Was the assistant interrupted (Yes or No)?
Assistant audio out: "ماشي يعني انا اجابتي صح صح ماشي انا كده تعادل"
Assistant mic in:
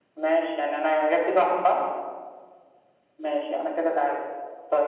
No